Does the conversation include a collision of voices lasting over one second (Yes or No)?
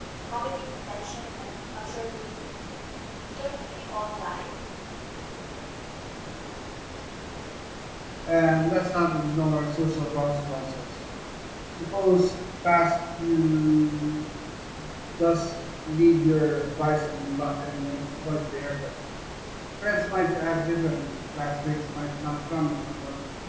No